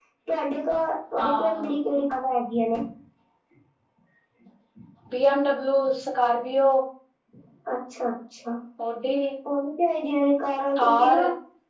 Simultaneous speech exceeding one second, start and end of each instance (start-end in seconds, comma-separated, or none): none